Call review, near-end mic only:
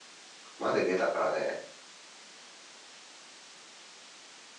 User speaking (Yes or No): Yes